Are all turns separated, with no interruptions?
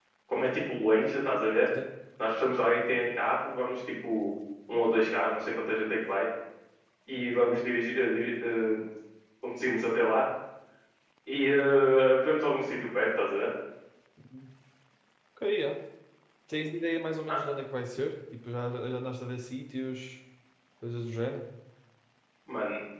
Yes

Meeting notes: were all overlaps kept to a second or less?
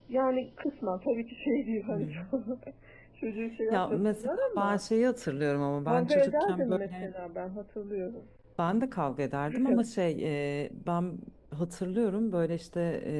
No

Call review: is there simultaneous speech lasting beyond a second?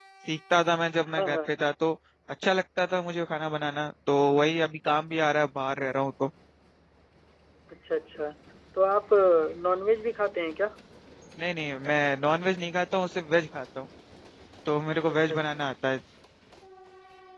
No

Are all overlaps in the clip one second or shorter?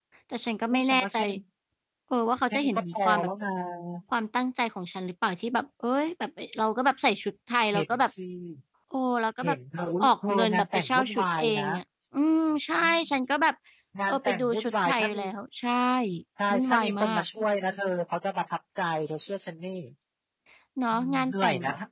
No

